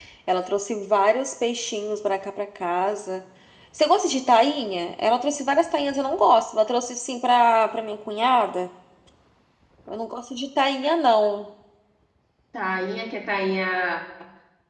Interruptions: none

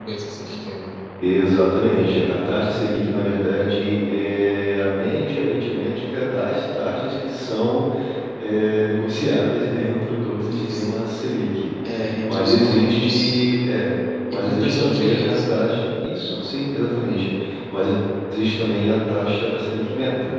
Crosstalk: present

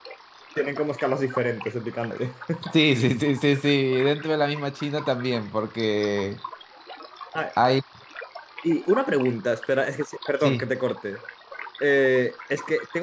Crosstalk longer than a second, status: none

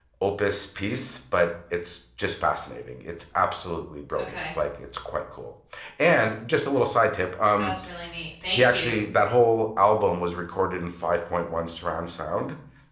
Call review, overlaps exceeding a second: none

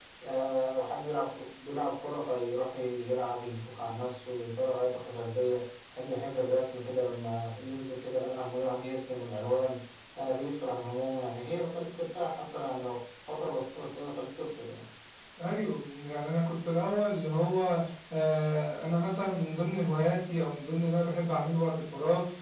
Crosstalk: none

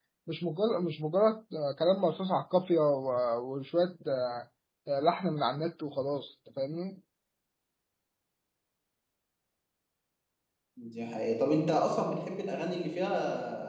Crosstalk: none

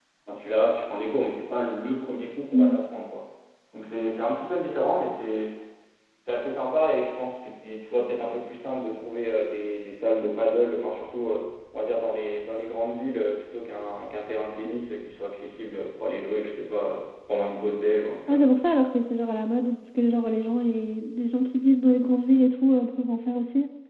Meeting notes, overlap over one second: none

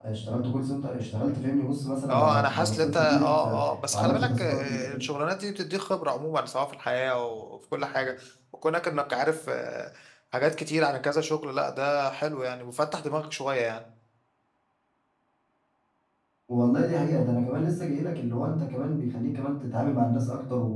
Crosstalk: present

